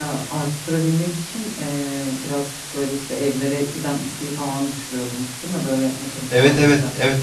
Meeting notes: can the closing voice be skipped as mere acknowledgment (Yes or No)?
No